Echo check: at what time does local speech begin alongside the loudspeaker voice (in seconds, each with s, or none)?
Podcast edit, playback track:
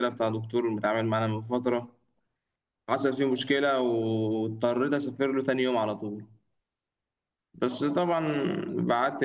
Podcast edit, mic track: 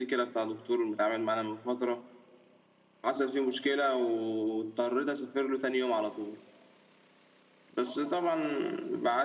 none